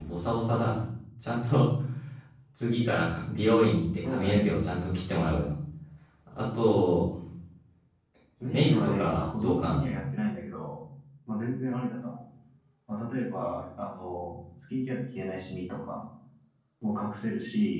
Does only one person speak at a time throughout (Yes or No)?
No